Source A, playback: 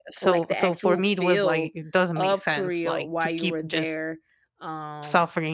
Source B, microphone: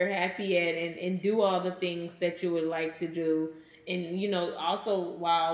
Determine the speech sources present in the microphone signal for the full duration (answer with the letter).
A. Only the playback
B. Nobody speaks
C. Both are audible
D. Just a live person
D